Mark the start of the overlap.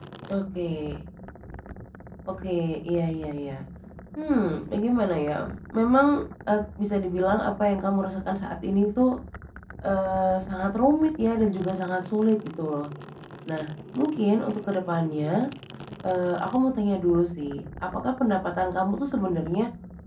none

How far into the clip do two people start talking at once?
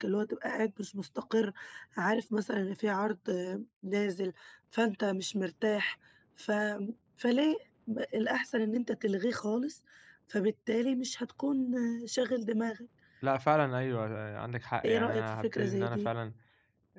15 s

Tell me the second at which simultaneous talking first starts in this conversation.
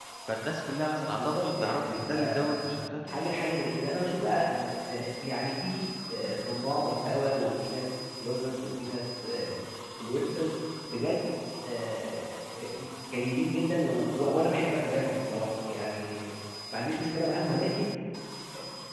1 s

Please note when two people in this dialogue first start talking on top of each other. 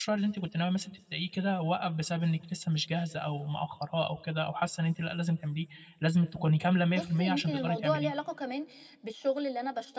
7 s

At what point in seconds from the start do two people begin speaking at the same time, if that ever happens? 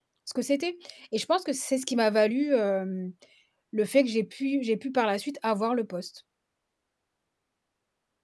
none

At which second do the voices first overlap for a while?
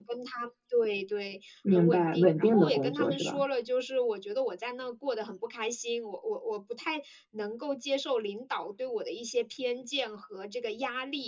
2 s

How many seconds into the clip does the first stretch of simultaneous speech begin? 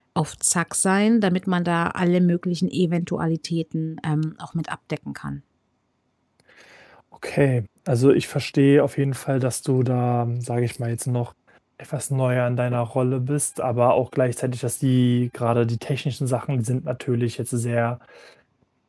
none

